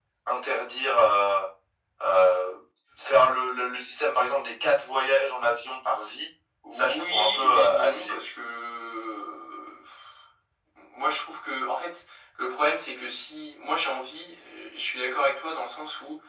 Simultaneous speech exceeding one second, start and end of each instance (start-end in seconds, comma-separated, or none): 6.7-8.2